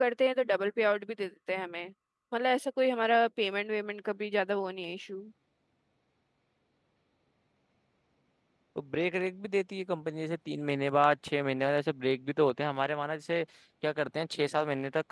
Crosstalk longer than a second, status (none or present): none